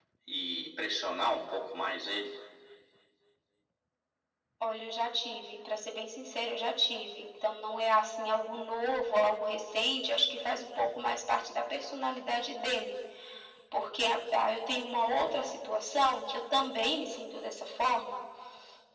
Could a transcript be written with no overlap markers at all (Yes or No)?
Yes